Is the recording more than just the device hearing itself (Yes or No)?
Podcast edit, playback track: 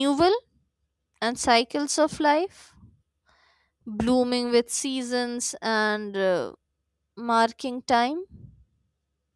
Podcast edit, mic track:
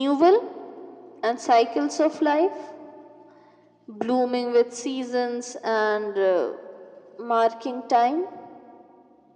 No